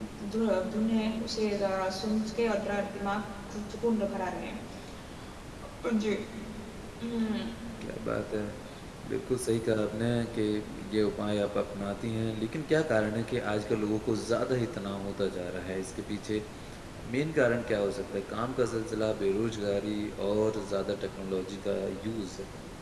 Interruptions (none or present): none